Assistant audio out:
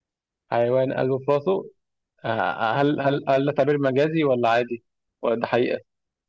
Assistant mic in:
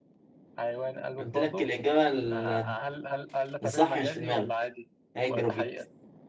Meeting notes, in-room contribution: present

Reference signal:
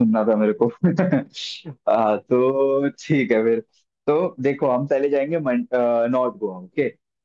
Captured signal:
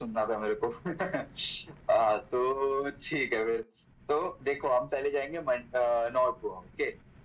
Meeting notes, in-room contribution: none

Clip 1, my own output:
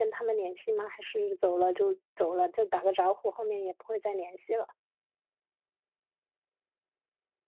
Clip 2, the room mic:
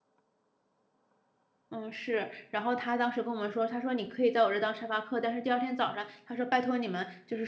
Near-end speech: present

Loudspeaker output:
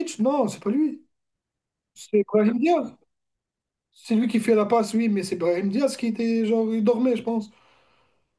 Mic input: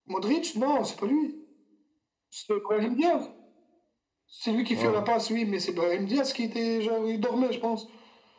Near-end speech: present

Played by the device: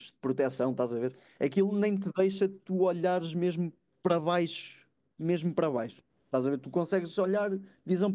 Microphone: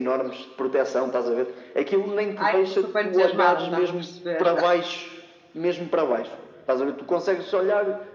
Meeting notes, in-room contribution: present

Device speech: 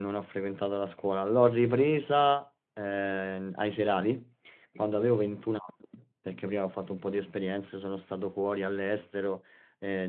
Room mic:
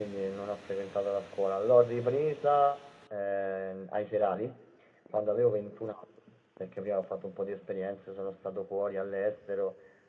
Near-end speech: none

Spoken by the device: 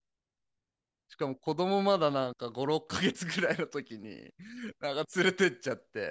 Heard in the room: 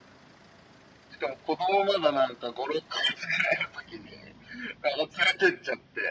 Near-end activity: none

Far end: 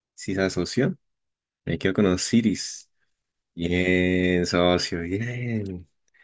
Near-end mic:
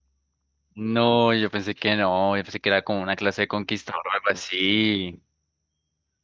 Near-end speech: present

